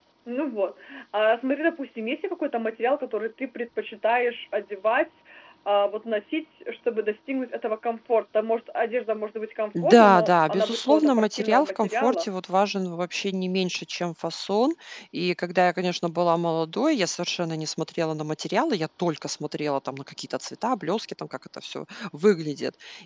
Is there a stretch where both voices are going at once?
Yes, from 9.7 s

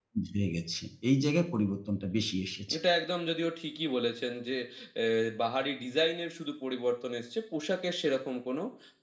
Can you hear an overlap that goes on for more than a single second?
No

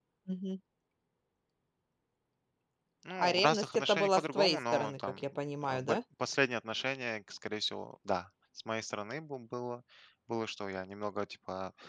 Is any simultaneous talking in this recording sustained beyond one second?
Yes, from 3.2 s

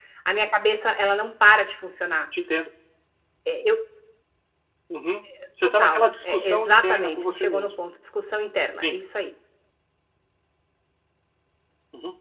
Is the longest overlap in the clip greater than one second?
Yes, from 5.6 s

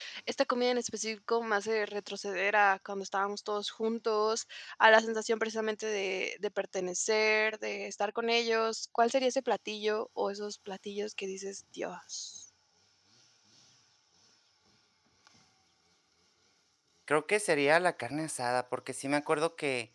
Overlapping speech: No

